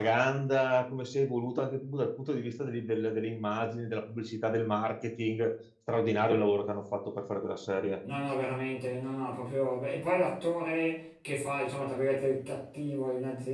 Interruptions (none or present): none